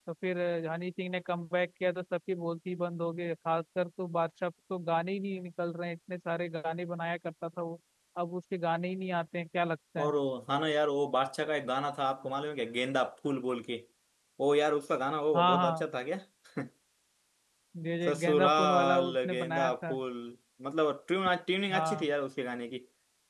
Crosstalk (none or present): present